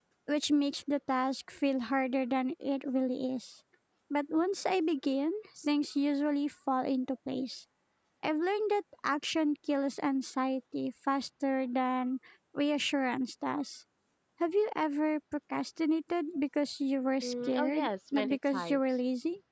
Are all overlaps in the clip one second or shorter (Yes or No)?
No